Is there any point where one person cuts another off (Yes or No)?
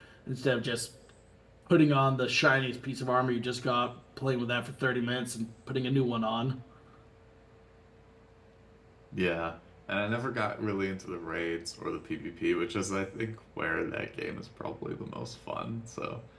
No